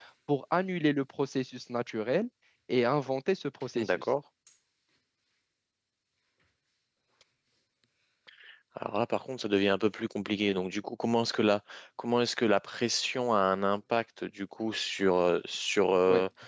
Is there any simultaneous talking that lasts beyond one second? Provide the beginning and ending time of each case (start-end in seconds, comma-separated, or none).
none